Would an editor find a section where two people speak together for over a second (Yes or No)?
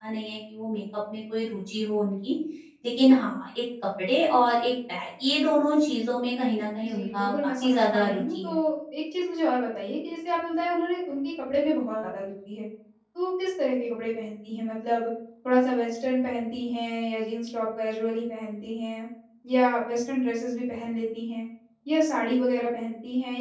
Yes